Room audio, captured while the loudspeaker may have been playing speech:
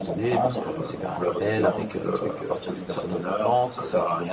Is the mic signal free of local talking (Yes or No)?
No